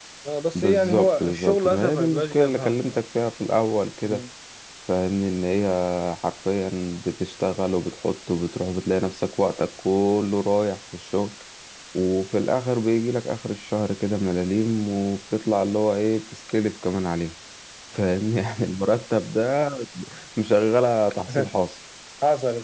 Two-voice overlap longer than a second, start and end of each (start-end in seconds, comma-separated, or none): 0.6-2.9